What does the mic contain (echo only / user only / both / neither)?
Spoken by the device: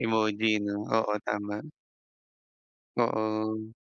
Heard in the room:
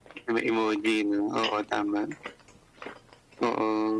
echo only